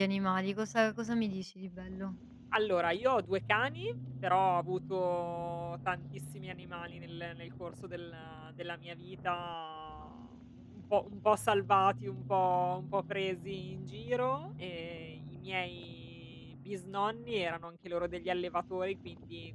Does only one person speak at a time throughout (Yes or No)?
Yes